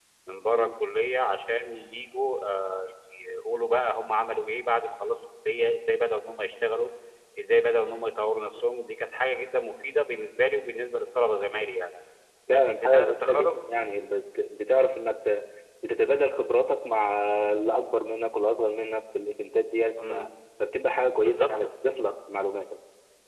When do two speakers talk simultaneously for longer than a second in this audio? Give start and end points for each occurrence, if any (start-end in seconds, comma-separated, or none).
12.5-13.9